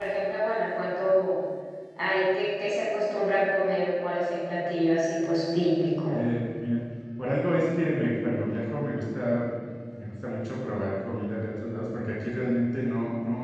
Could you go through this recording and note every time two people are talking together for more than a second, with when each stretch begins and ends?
none

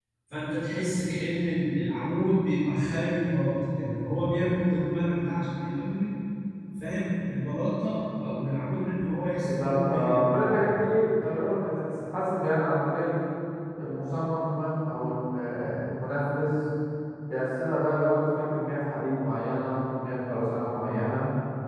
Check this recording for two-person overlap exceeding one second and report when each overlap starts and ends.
9.4-10.7

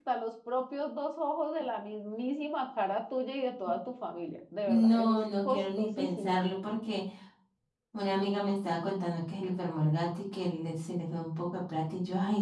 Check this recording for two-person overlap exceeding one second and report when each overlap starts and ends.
4.7-6.4

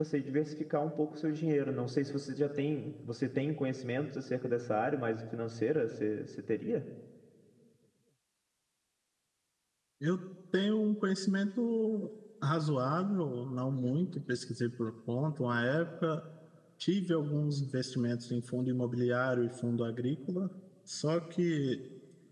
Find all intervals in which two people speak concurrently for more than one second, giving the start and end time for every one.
none

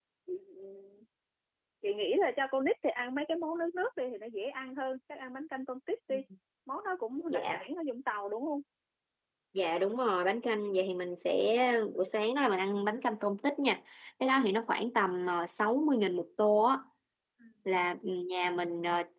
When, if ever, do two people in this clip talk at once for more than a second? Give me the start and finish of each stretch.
none

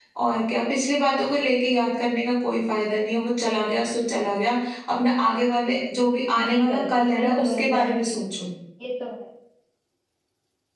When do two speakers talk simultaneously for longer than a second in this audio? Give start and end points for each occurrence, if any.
6.4-8.2

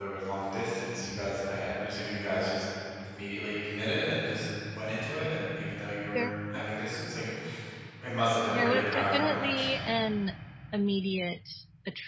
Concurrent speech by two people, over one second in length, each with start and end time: 8.5-9.9

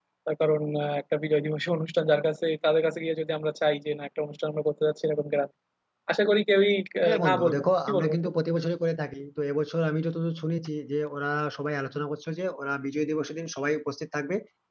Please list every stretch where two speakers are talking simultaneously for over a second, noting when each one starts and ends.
7.0-8.3

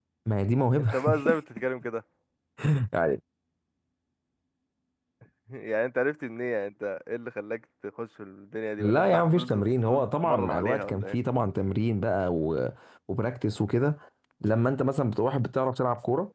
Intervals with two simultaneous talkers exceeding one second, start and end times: 8.8-11.2

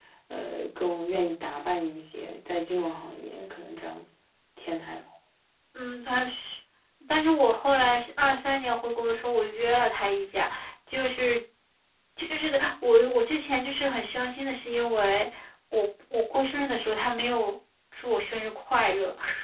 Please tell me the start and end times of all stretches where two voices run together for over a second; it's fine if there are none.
none

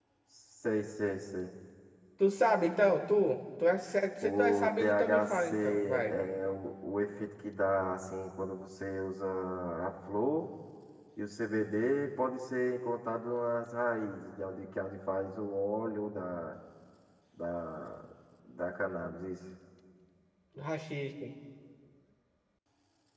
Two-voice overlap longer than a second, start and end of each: 4.2-6.1

